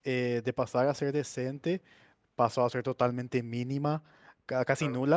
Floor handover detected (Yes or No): No